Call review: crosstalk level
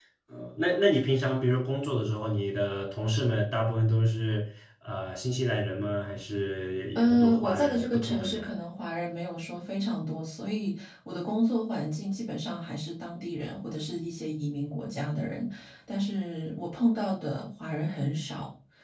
present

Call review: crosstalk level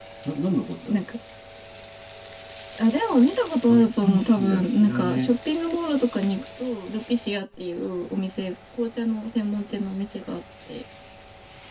present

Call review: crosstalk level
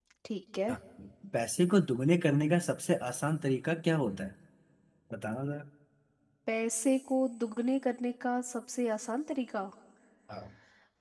none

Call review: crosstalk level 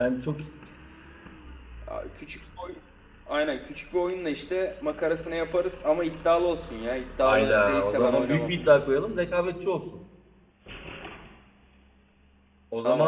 present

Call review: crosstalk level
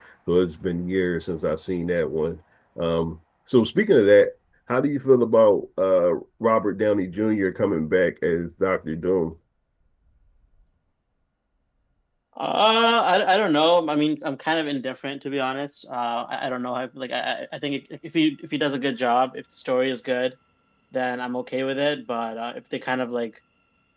none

